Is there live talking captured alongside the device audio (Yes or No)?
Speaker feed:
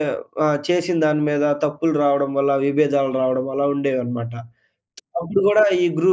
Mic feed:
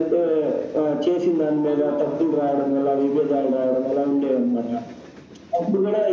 Yes